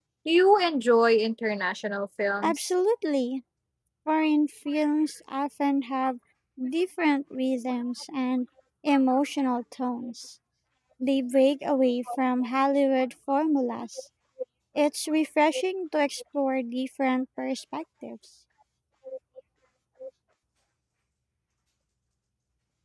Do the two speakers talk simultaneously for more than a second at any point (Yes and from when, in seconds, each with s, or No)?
No